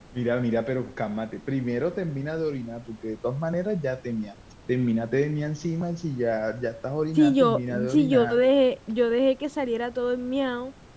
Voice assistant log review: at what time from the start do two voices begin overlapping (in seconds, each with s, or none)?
7.2 s